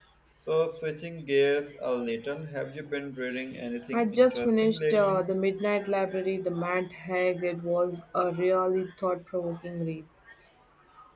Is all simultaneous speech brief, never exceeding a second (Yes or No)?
No